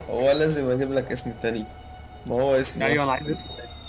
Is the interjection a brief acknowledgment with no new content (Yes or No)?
No